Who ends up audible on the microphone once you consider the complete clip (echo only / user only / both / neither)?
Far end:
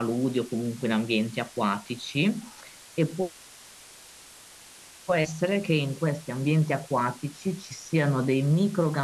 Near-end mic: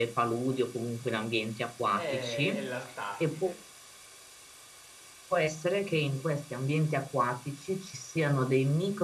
both